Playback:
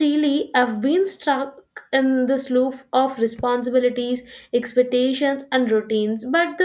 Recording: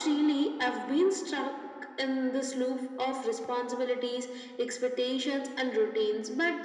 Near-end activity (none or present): none